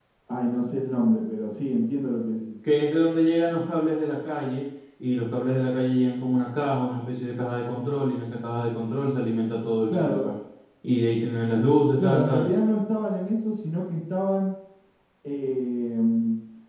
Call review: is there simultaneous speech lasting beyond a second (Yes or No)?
No